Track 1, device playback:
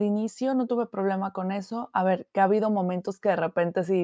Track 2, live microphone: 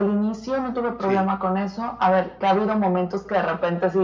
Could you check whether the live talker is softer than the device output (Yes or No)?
Yes